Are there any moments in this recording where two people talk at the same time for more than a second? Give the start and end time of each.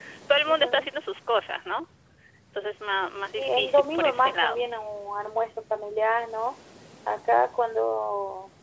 3.3-4.6

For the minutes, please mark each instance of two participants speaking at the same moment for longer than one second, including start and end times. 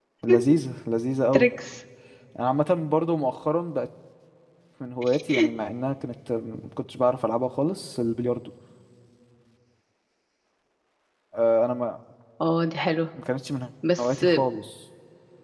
none

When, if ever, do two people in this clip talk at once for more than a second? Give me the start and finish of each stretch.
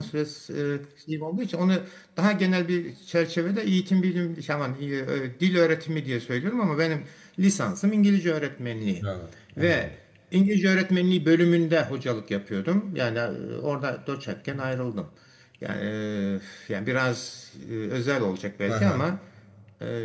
none

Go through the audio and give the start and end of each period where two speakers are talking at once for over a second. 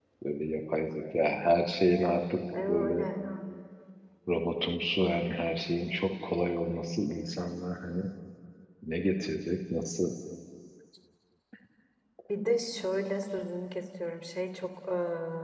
none

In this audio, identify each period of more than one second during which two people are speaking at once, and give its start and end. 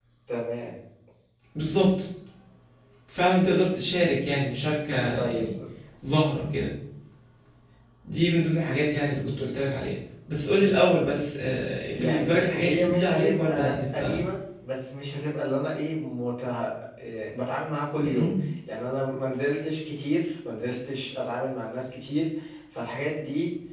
11.9-14.2

